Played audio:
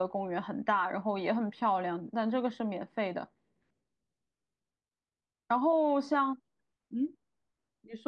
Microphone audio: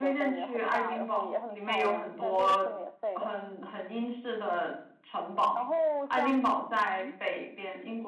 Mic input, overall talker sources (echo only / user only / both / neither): both